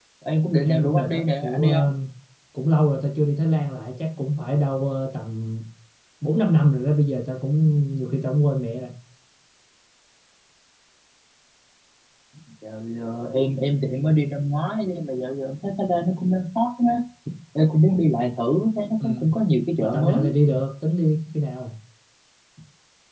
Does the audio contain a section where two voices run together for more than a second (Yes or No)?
Yes